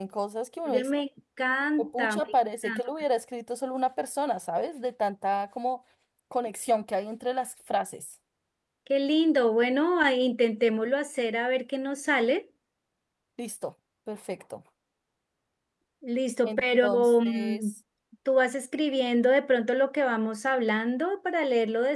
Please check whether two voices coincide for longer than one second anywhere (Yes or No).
Yes